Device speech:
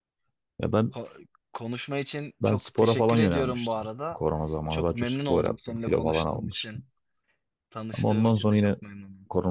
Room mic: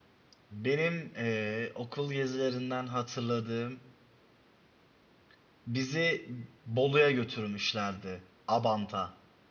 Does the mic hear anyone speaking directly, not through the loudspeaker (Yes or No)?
Yes